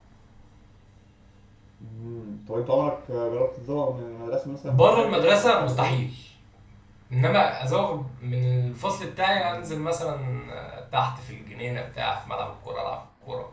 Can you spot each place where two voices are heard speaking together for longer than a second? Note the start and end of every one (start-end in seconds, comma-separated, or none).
4.7-6.0